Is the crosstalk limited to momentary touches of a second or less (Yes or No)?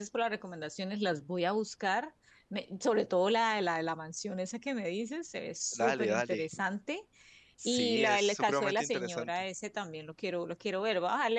No